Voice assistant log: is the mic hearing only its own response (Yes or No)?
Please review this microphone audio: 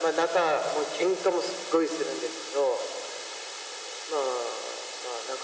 Yes